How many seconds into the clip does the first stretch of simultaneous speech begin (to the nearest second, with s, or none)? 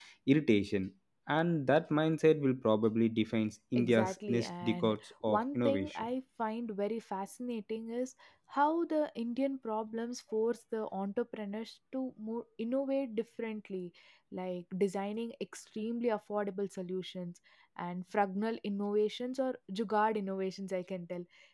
4 s